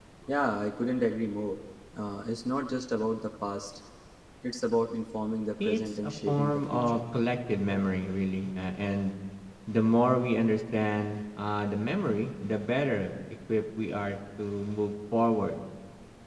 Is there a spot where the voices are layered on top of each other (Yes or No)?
Yes